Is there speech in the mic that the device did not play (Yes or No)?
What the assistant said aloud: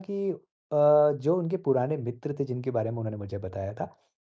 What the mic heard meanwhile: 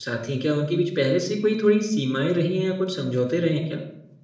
Yes